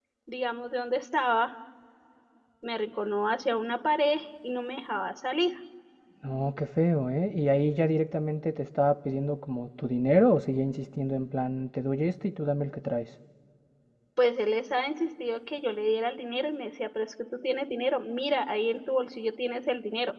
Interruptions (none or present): none